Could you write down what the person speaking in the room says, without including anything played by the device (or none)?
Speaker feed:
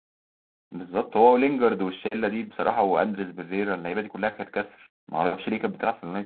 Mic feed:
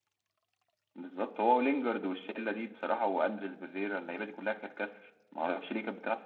none